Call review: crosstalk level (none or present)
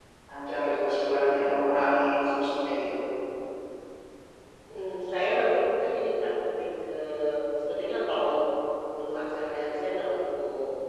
none